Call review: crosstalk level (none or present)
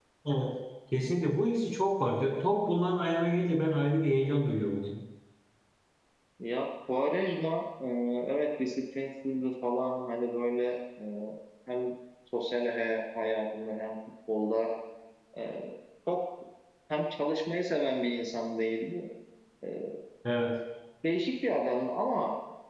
none